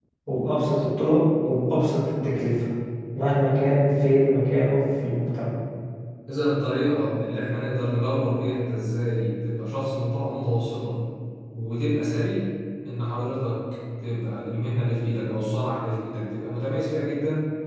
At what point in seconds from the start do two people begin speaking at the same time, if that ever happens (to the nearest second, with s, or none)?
none